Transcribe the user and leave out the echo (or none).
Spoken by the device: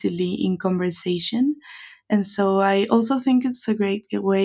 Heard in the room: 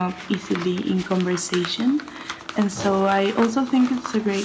none